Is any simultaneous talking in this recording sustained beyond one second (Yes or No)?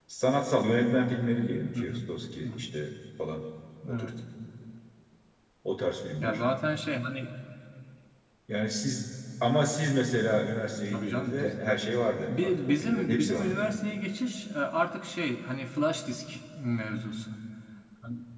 Yes